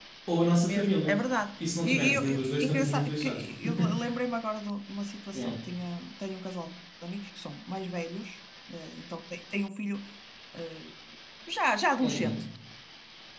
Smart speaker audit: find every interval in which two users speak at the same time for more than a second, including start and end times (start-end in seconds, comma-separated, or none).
1.8-3.4